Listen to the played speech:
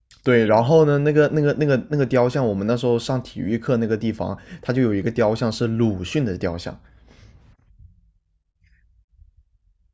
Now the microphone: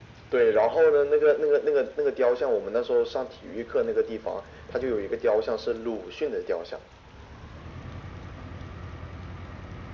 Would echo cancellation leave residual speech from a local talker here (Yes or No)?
No